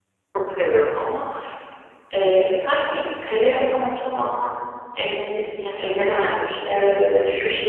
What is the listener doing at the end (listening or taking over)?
taking over